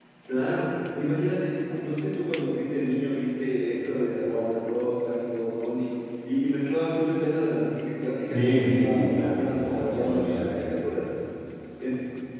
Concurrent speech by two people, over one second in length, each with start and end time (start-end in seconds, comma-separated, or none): 8.3-10.7